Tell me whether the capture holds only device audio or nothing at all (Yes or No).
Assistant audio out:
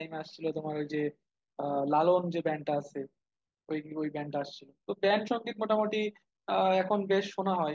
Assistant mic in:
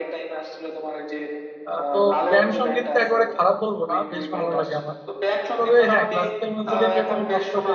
No